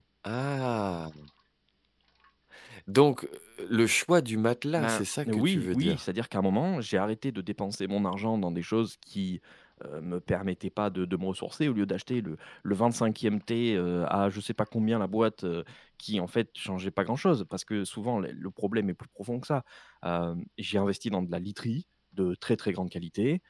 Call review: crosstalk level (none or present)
present